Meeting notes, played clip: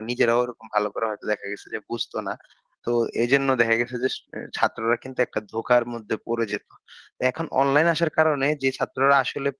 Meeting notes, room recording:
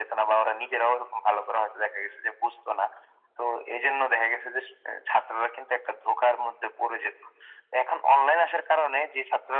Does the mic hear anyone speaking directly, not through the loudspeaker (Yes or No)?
No